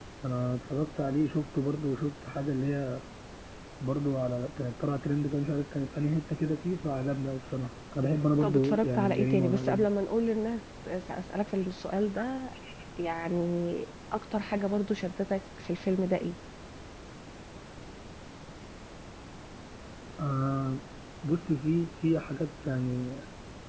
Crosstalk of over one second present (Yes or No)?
Yes